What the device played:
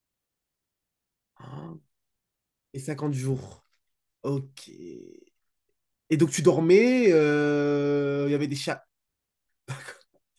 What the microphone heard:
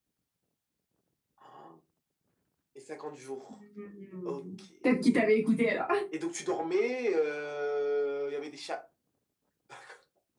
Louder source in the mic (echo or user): user